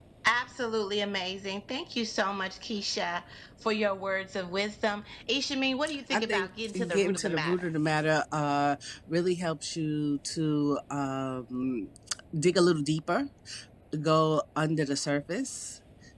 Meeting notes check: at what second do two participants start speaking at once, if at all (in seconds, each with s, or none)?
5.9 s